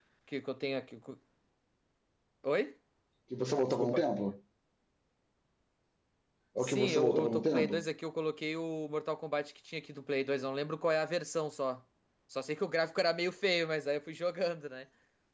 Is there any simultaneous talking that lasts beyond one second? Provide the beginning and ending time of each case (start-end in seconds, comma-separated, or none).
6.6-7.8